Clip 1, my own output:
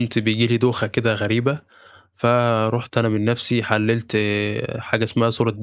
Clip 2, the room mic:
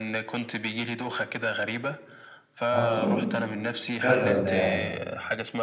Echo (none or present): present